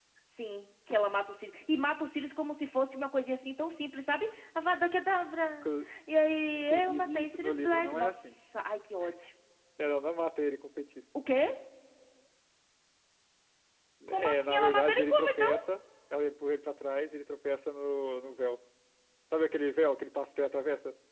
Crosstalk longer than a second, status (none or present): present